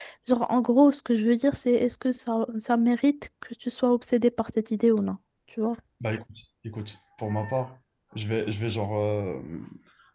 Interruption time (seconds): none

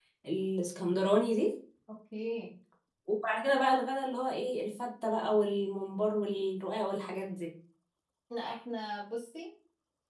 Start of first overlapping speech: none

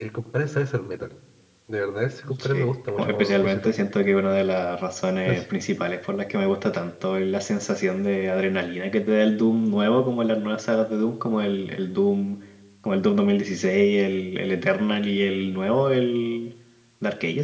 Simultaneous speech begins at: 2.4 s

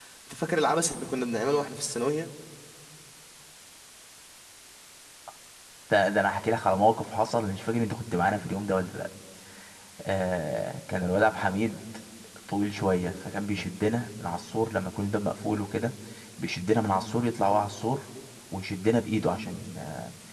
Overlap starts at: none

